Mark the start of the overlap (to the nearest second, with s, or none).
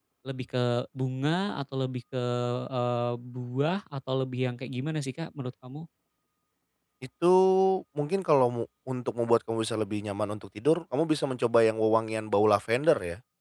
none